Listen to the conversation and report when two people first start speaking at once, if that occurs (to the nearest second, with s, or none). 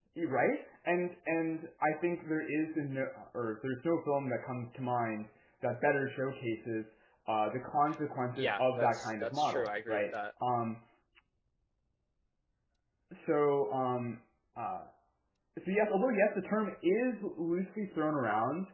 8 s